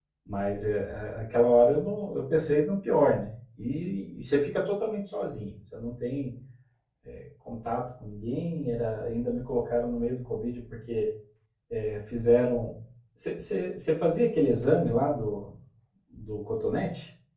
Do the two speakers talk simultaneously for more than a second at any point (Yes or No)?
No